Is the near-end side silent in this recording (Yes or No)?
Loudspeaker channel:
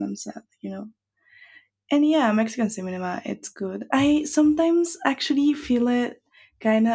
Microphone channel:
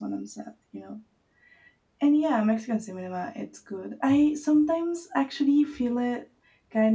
Yes